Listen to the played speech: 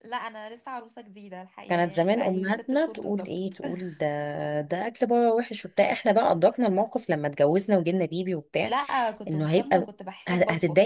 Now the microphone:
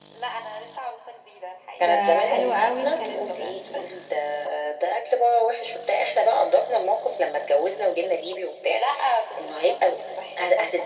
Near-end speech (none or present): present